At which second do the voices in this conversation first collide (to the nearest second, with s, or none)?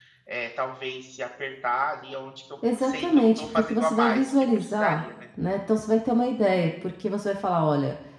3 s